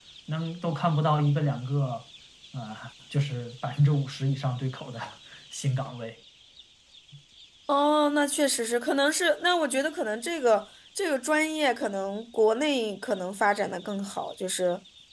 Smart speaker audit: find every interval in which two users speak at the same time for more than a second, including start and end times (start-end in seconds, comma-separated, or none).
none